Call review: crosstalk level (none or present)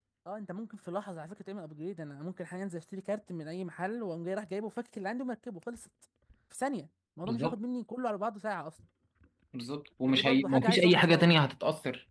present